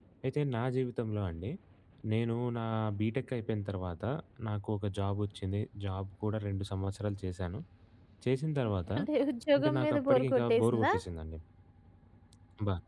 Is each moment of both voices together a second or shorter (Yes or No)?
No